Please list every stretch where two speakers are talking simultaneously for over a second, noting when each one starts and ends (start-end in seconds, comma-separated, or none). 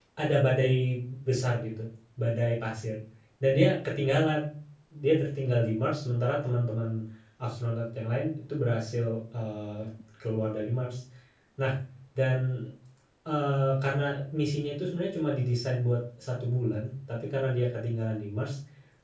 none